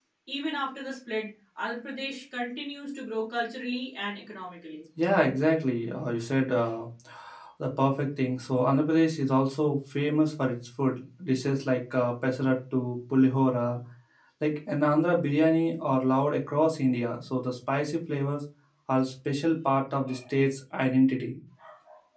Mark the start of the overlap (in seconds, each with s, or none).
none